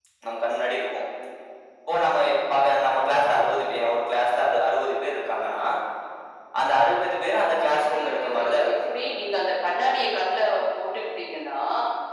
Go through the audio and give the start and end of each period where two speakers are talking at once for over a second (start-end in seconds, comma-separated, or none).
7.5-8.8